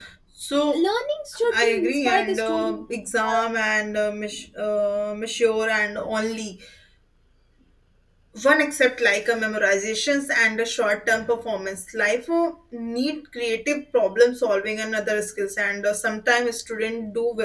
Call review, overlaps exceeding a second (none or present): present